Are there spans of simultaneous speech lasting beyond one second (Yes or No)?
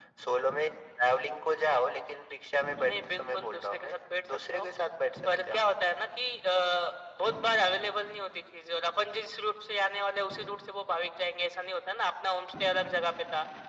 Yes